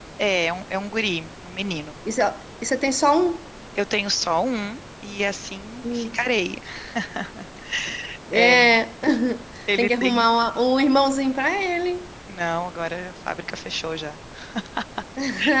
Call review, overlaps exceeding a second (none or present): none